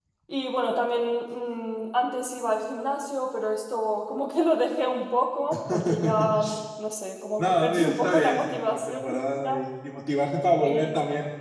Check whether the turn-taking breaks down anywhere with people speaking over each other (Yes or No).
Yes